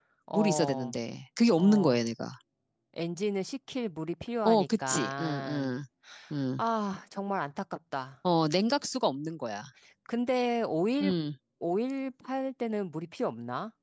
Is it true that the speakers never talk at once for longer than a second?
No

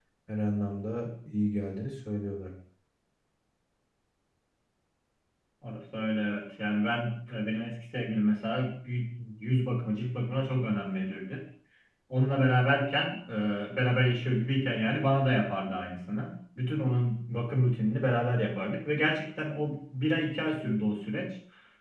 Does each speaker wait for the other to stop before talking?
Yes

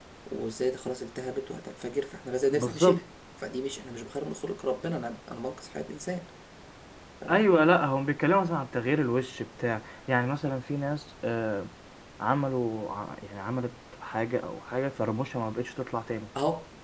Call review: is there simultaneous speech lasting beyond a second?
No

